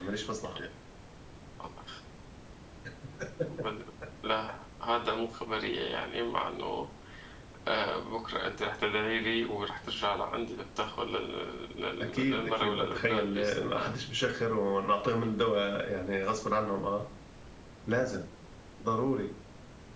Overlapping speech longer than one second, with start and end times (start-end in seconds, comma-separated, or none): 12.0-14.0